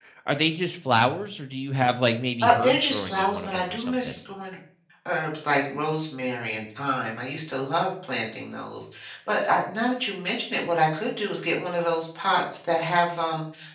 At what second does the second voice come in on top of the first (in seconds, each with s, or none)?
2.4 s